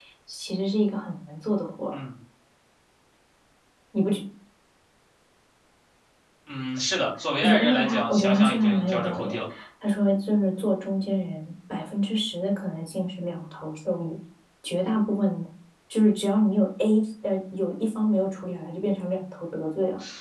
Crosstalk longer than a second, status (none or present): present